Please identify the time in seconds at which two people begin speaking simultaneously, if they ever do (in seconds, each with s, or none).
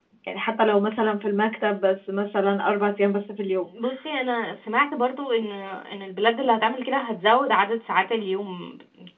none